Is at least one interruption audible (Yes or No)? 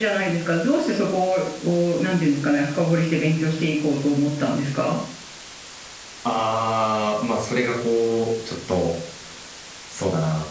No